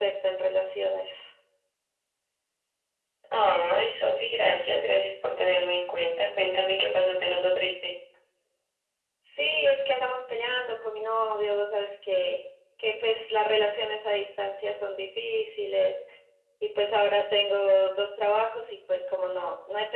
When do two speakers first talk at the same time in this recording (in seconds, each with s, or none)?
none